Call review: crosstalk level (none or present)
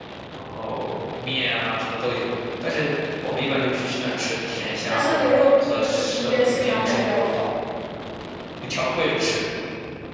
present